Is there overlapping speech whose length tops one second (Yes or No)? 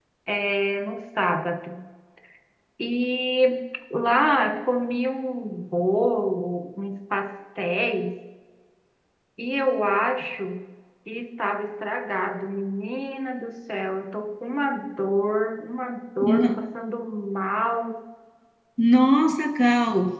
No